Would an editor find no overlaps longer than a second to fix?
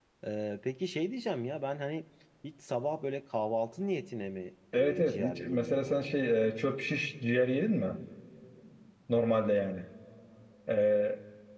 No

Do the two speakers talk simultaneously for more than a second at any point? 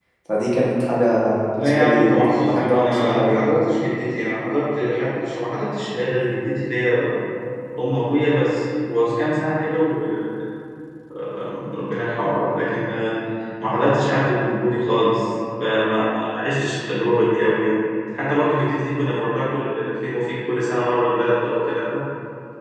Yes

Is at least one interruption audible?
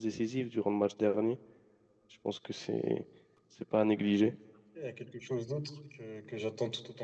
No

